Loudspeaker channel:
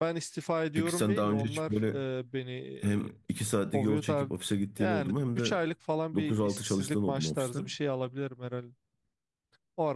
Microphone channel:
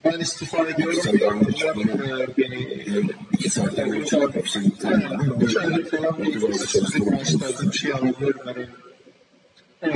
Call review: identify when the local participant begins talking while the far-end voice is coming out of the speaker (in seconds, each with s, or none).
none